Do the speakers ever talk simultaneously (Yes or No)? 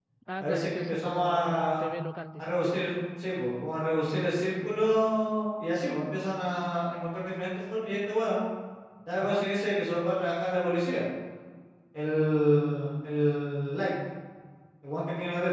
Yes